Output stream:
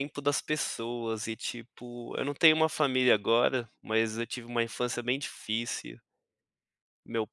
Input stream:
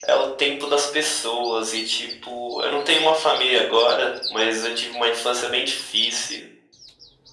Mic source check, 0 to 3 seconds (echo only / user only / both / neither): echo only